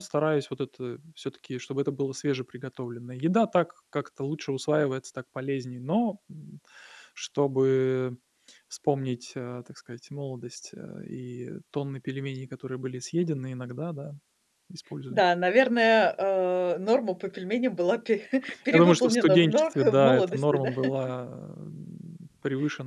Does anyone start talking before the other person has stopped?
Yes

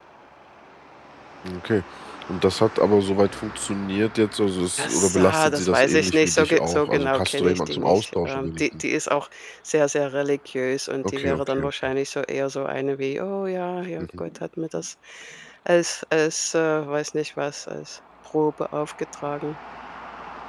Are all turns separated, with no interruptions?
No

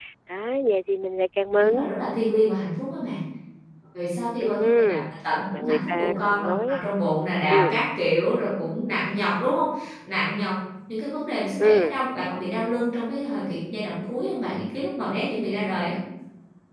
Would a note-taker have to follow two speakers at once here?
Yes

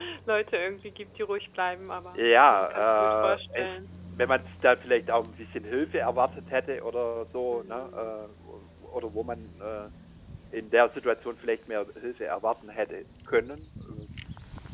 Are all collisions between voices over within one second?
No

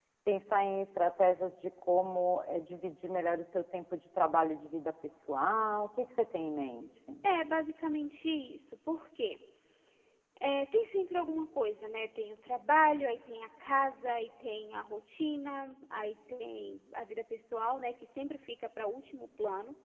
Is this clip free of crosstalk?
Yes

